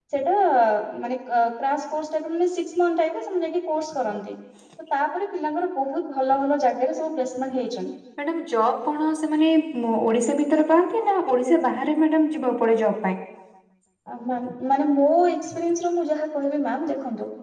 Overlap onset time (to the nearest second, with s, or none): none